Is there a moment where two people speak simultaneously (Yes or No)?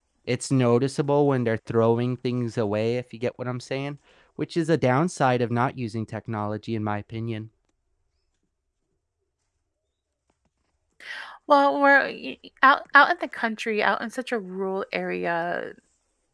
No